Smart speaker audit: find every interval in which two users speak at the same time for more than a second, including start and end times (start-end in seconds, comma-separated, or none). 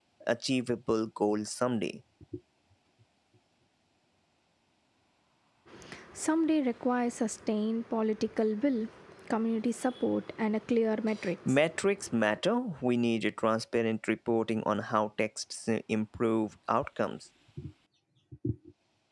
none